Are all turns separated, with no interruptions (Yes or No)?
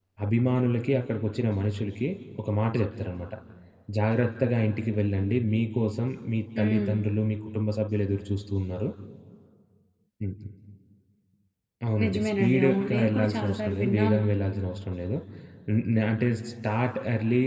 No